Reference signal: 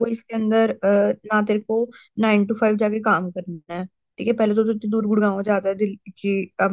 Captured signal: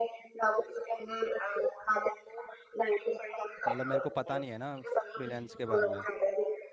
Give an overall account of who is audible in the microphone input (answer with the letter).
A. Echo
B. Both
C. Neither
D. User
B